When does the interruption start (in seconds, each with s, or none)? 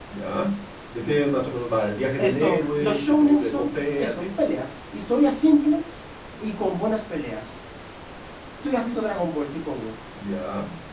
2.2 s